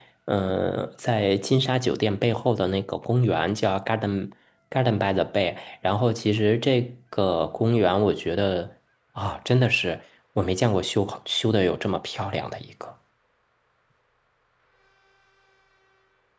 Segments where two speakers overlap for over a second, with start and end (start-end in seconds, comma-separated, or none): none